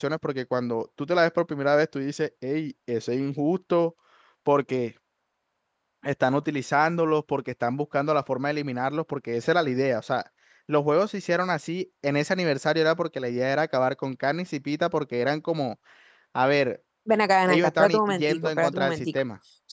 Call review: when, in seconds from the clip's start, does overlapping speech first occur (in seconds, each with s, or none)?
17.5 s